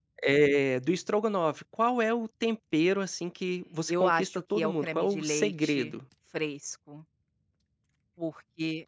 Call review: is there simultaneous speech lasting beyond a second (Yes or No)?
Yes